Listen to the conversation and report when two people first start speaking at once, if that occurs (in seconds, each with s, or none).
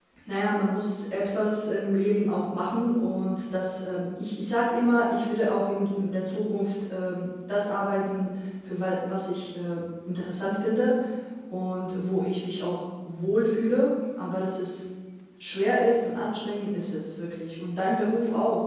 none